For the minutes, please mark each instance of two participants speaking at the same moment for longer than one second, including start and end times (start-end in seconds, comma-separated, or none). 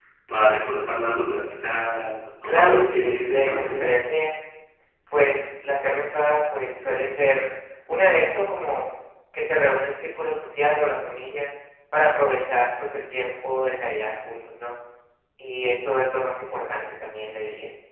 2.4-3.9